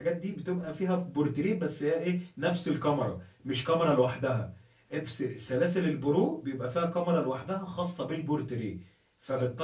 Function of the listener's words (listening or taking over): taking over